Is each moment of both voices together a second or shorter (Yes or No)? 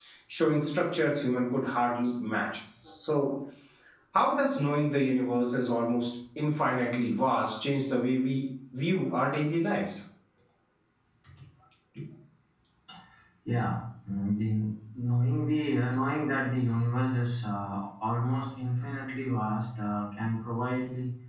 Yes